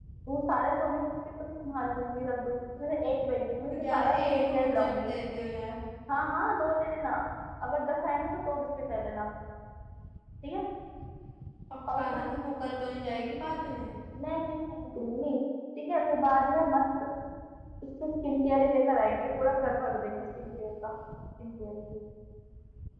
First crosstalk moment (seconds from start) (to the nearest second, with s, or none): 4 s